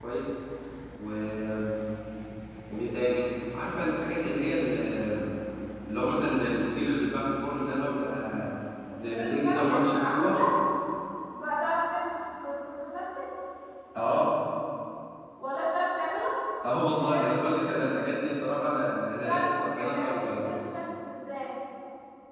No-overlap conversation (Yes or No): No